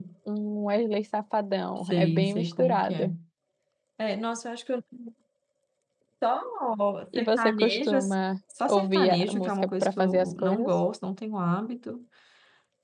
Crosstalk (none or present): present